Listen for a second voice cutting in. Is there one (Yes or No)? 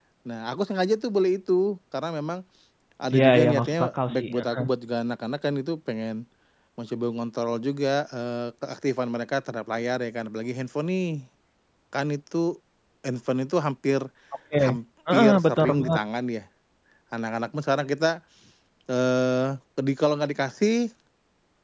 Yes